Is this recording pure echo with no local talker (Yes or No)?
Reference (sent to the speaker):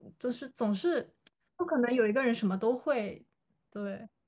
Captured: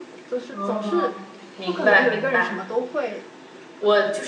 No